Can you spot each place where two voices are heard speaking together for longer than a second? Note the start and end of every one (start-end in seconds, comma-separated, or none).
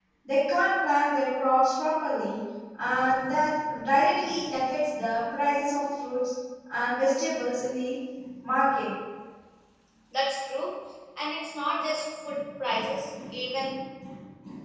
none